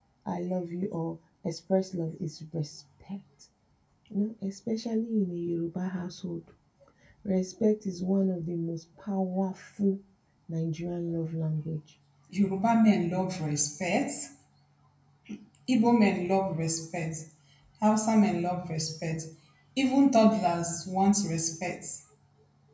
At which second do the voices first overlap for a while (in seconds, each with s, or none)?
none